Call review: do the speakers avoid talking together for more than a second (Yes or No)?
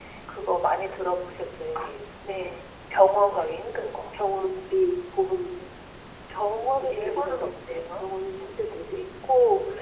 No